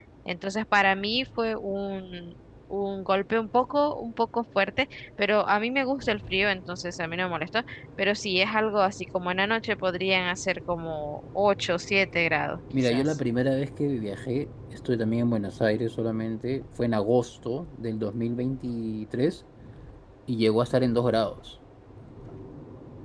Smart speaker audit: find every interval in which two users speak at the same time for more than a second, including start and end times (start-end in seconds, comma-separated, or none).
none